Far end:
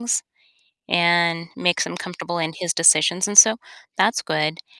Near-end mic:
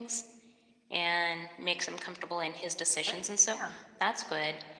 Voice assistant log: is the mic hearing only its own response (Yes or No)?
No